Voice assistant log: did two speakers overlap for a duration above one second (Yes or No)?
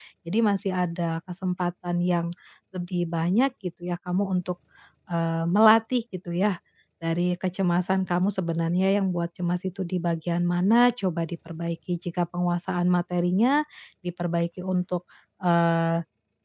No